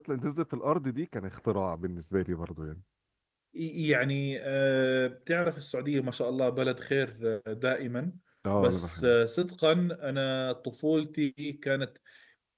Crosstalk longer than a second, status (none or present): none